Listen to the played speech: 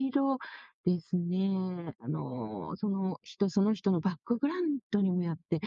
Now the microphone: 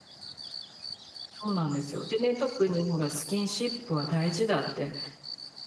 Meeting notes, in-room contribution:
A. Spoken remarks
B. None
A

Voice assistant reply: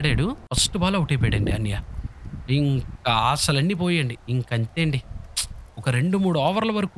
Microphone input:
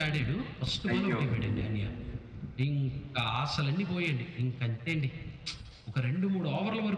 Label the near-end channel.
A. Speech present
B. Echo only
A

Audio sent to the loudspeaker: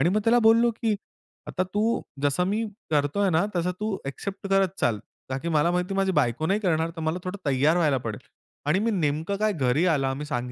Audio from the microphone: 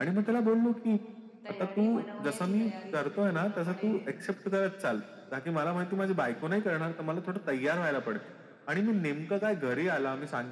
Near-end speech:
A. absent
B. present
B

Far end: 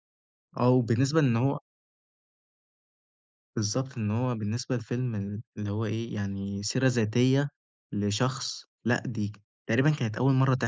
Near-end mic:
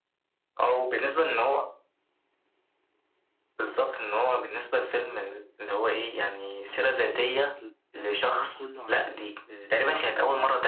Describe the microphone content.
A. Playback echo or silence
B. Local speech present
B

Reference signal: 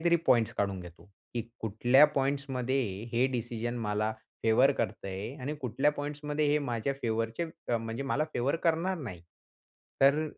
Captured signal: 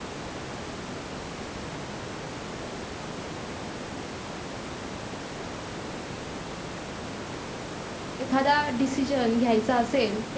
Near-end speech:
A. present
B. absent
A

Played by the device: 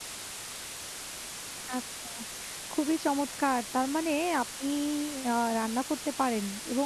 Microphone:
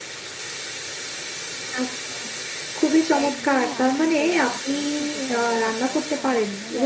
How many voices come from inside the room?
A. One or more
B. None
A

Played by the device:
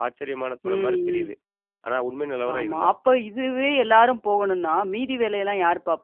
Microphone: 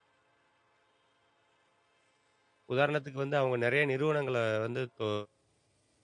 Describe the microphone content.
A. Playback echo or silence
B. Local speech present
B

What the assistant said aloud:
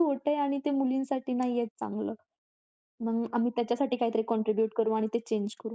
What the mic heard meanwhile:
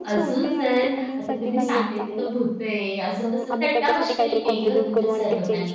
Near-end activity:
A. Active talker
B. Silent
A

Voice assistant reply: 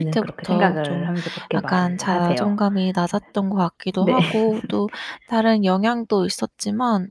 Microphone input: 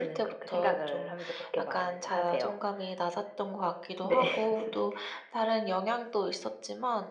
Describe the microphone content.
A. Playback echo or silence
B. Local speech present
A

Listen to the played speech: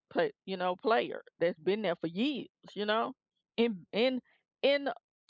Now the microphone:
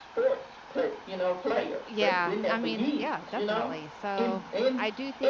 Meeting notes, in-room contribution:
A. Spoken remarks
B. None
A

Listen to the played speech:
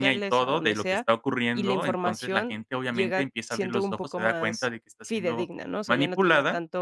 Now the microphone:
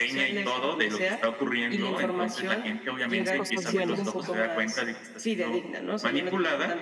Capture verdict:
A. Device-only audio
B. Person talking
B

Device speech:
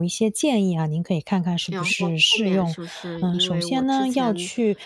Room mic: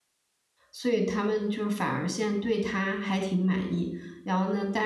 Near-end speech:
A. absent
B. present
B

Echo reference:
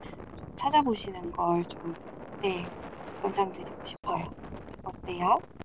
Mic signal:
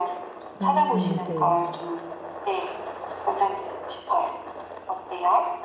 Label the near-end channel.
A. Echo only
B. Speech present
B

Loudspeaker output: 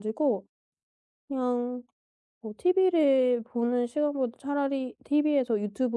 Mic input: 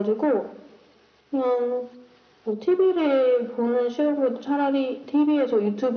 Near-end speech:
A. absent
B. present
A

